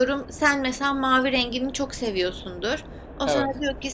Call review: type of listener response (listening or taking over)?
listening